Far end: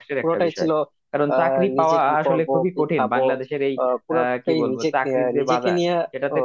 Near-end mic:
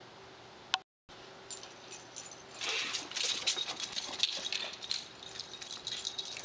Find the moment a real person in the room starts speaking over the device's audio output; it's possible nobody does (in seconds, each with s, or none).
none